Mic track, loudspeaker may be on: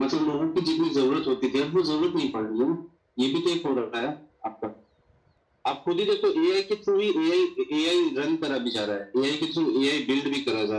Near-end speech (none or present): none